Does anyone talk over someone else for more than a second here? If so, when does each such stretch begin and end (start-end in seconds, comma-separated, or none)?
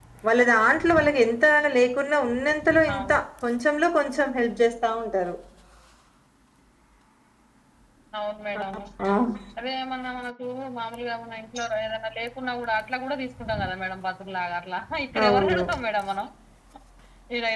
none